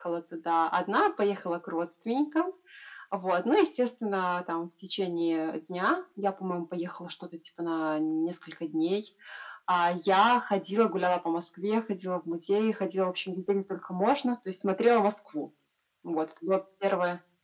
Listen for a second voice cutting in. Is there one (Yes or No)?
No